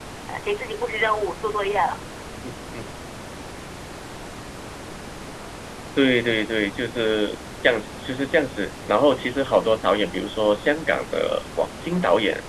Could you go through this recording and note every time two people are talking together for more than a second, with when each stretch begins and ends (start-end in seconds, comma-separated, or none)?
none